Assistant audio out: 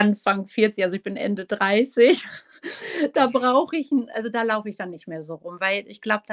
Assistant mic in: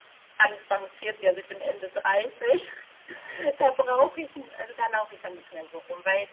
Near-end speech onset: none

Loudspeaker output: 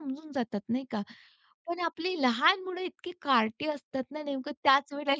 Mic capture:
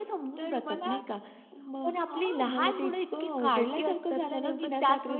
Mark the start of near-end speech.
0.4 s

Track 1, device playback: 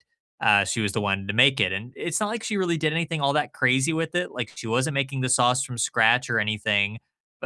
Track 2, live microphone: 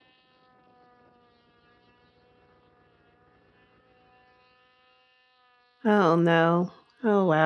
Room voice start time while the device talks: 5.8 s

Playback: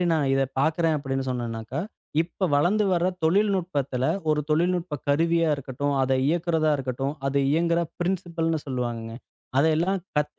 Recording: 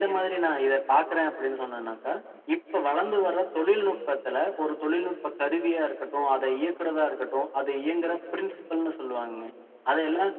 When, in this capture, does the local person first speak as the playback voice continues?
none

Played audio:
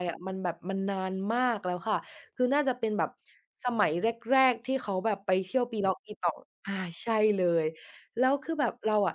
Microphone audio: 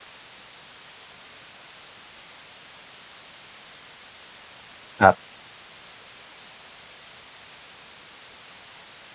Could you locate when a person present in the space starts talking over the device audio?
5.0 s

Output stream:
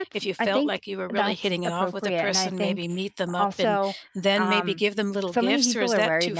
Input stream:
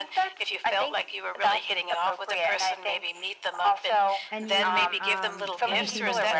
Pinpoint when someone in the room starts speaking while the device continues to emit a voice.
4.3 s

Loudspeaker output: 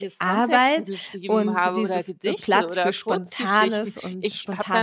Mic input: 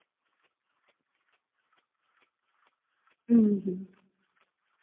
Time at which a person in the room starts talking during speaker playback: 3.3 s

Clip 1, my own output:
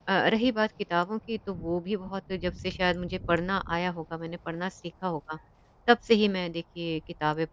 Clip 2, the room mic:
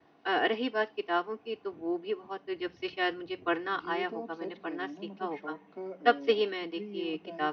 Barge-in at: 3.7 s

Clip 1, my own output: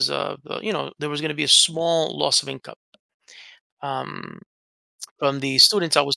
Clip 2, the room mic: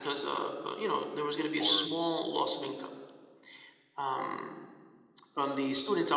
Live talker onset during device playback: 1.6 s

